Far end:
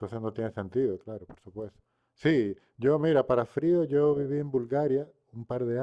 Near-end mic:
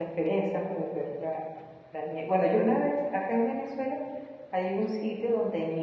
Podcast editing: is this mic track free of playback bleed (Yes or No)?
Yes